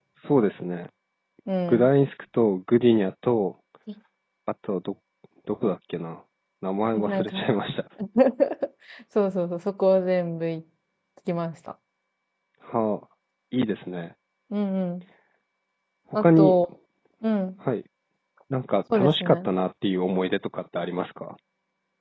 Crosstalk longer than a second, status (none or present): none